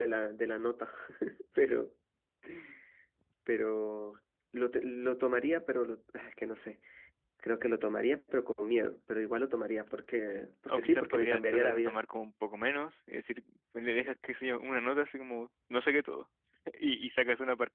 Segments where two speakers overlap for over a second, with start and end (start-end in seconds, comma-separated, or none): 10.7-12.0